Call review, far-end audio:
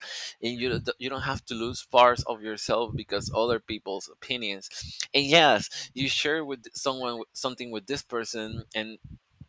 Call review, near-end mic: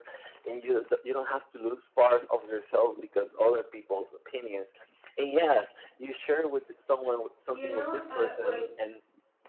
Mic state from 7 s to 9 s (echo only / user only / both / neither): both